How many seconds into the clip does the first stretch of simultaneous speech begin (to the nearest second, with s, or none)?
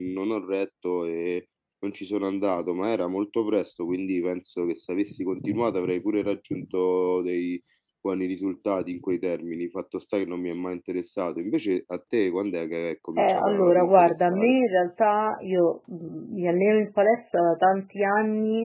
13 s